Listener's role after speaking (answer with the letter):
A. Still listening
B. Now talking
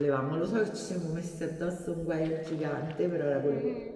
B